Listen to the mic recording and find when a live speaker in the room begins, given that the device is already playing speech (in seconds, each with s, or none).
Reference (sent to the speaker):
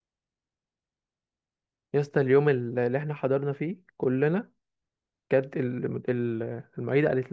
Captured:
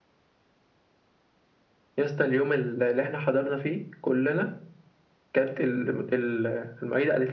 none